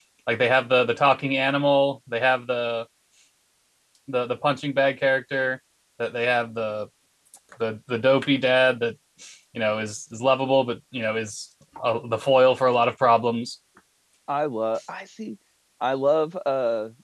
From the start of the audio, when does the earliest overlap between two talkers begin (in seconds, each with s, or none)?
none